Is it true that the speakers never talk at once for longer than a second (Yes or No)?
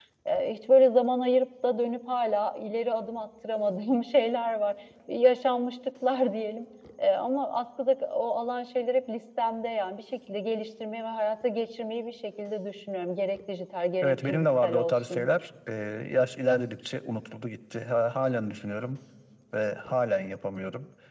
No